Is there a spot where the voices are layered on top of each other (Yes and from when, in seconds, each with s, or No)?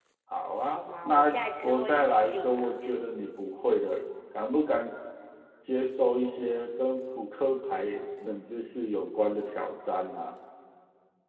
Yes, from 0.7 s